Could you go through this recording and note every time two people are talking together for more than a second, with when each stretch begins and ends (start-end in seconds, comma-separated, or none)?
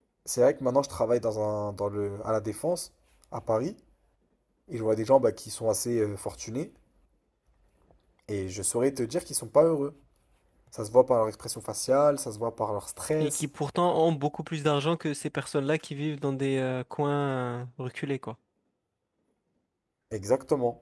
none